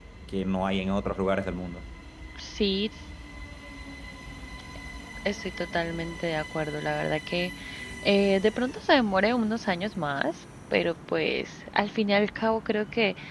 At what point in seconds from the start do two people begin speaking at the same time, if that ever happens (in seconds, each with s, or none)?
none